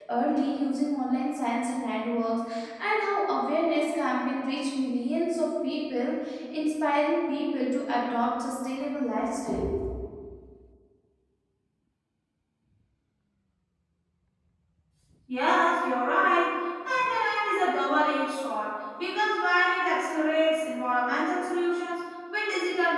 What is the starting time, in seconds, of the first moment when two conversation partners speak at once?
none

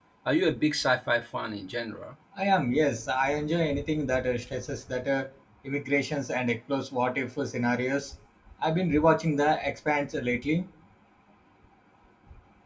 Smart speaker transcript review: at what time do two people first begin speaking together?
none

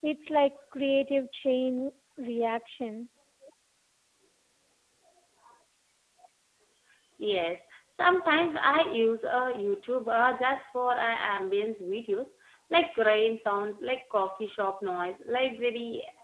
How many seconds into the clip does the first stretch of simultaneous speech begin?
none

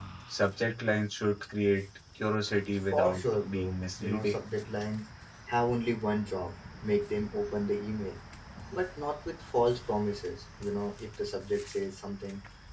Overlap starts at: 2.9 s

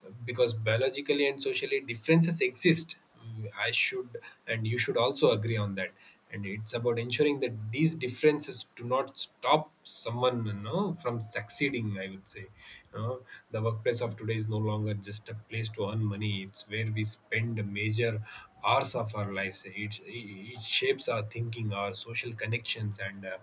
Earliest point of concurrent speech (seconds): none

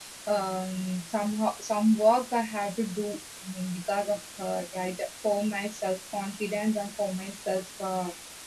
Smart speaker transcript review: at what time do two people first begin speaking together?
none

